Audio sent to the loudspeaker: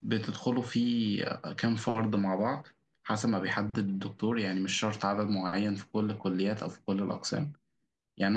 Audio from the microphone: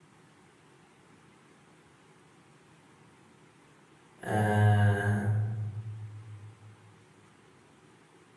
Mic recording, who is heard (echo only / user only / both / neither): user only